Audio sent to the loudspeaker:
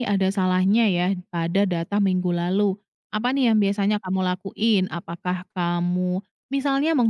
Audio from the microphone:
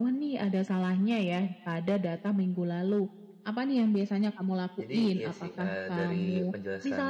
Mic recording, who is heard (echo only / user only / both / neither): both